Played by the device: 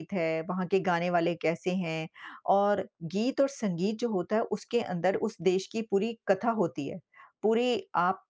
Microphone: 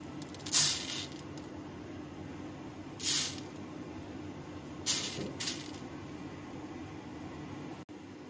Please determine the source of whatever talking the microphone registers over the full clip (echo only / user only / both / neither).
neither